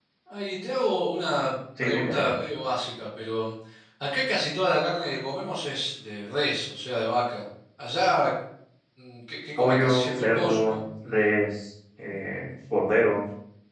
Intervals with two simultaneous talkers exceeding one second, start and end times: 9.6-10.8

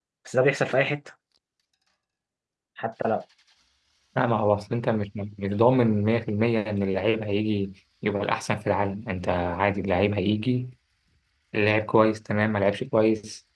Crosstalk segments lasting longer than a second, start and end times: none

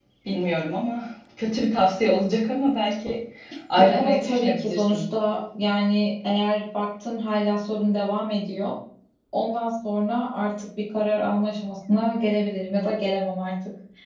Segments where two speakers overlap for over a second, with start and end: 3.8-5.0

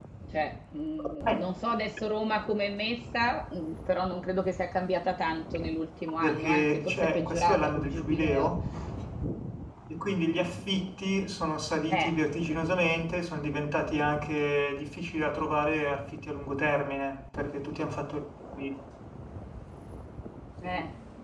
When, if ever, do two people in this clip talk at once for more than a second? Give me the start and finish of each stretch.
6.2-8.5

